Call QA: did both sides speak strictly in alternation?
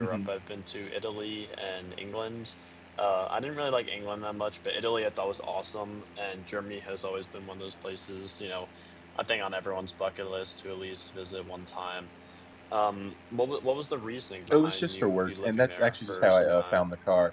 No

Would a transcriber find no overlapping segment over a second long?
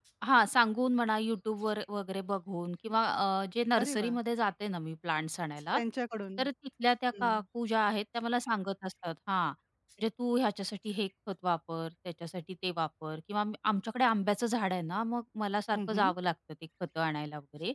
Yes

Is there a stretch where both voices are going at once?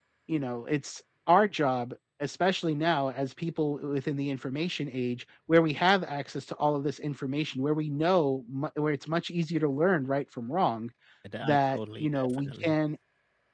Yes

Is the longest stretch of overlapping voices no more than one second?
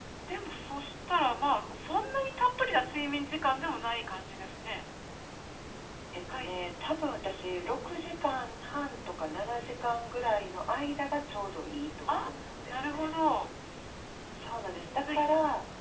Yes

